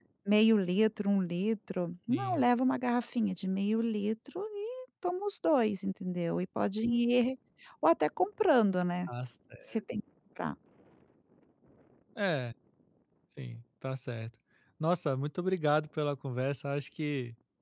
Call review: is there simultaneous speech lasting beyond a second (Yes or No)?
No